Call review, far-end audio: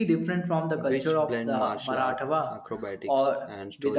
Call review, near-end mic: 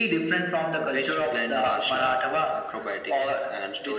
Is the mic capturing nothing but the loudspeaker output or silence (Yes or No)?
Yes